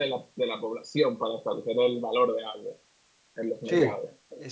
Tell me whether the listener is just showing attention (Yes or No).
No